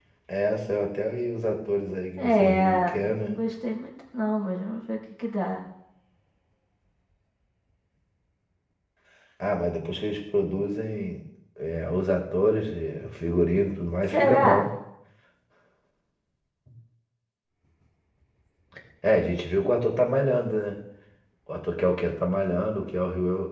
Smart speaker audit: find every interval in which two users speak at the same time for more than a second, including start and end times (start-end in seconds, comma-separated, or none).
2.2-3.4